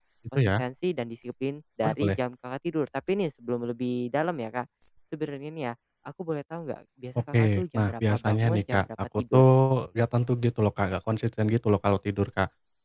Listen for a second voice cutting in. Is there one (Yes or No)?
Yes